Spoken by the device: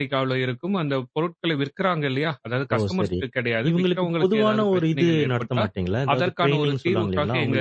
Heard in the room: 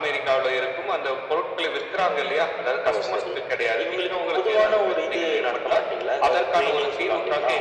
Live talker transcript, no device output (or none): none